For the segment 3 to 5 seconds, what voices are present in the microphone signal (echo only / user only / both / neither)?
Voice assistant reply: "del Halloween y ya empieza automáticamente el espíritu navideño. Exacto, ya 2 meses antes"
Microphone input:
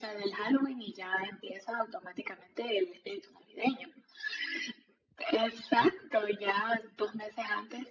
echo only